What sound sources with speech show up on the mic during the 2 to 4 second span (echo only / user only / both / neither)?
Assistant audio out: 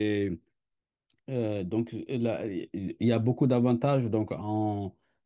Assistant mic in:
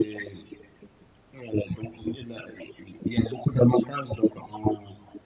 echo only